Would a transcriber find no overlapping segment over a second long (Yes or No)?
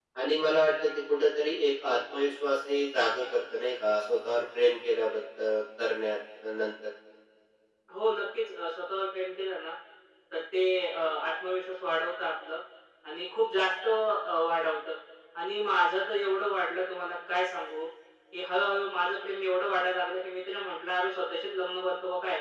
Yes